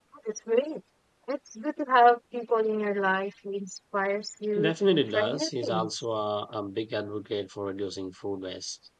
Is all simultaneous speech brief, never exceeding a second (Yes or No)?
No